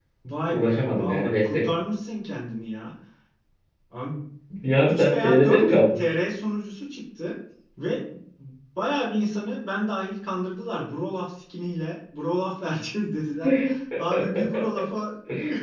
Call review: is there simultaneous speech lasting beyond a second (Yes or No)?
Yes